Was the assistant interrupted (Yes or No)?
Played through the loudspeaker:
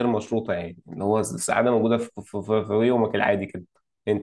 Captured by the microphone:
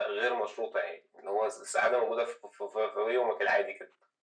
No